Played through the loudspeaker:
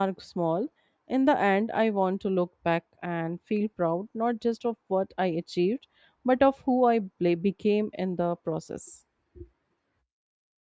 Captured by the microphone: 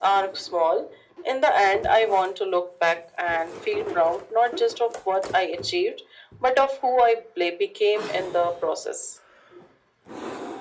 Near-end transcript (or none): none